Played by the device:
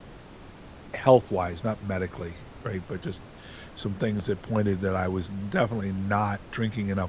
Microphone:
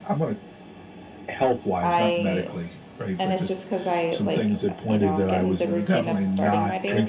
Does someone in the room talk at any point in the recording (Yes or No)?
Yes